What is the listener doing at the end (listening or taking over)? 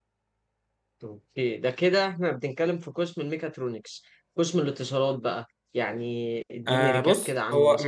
taking over